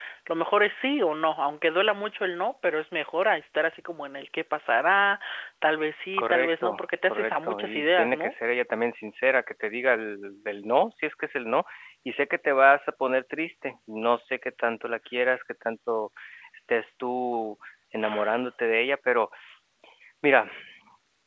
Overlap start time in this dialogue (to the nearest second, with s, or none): 6 s